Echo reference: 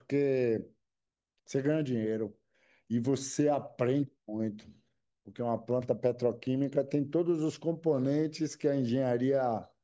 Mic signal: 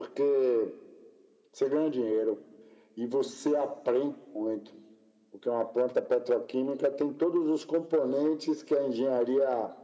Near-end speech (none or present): none